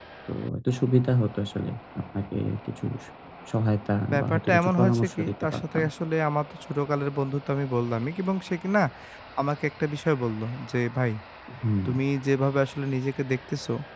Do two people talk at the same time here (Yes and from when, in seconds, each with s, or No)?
Yes, from 4.1 s